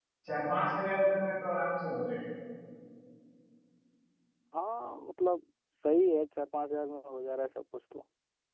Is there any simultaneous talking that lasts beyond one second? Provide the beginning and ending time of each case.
none

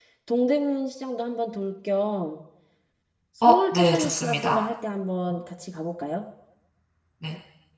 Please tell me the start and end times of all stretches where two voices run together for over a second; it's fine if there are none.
3.4-4.6

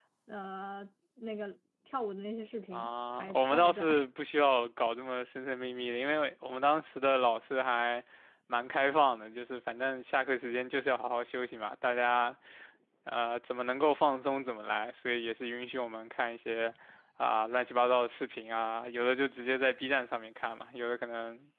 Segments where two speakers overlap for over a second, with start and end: 2.7-4.0

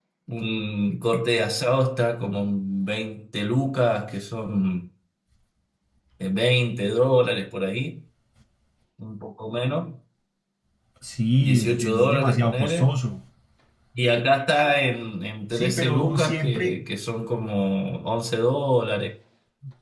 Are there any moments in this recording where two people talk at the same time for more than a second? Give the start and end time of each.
11.4-12.9, 15.5-16.8

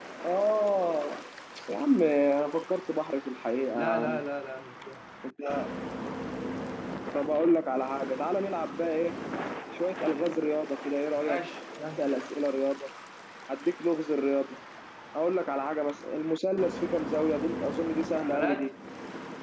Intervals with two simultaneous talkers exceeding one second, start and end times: none

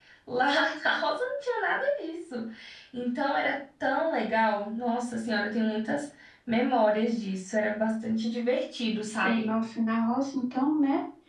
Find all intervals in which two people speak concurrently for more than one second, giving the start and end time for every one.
none

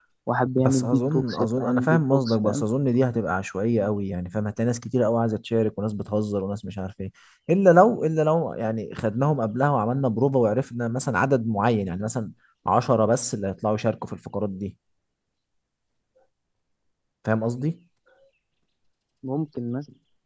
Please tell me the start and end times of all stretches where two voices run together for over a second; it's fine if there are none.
0.6-2.6

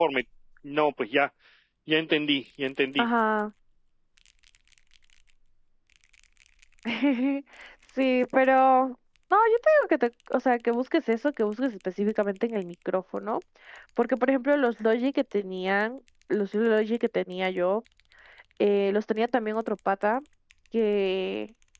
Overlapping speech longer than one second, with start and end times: none

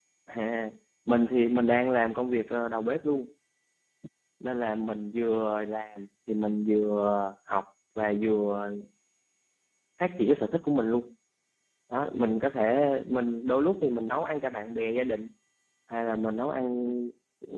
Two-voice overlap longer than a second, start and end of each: none

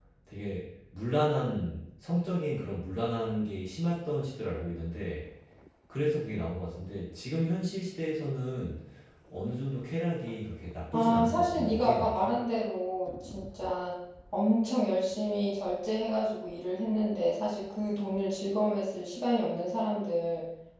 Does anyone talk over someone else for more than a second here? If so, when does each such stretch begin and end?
10.9-12.3

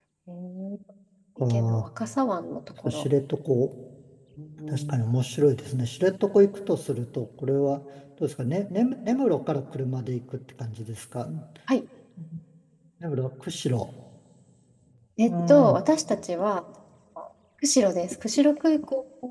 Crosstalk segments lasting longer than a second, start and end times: none

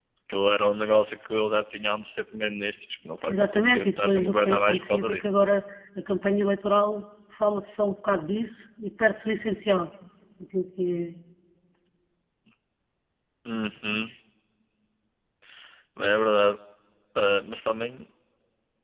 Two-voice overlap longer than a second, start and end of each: 3.3-5.3

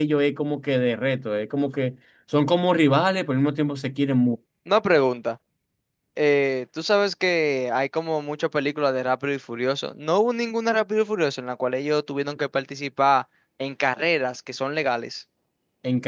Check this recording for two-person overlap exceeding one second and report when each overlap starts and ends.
none

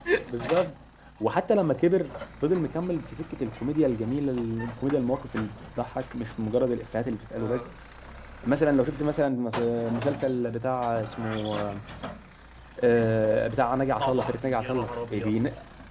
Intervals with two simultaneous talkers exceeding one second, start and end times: 14.0-15.4

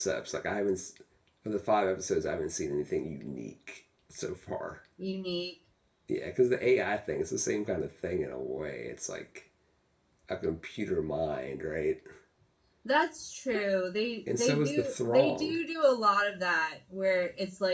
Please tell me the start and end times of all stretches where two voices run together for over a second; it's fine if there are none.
14.3-15.6

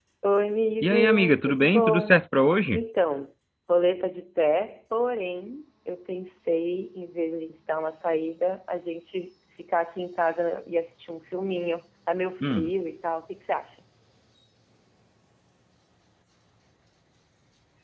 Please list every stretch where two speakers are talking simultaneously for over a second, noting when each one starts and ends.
0.8-2.2

